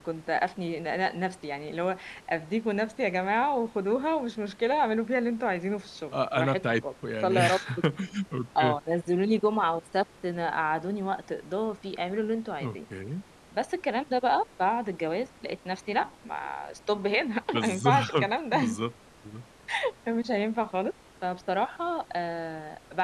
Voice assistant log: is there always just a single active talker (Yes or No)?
No